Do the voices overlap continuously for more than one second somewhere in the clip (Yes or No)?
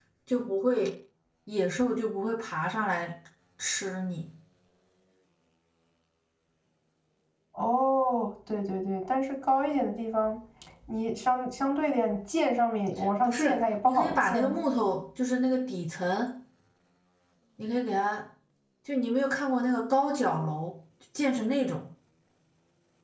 Yes